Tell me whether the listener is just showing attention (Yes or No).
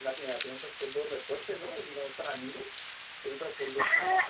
No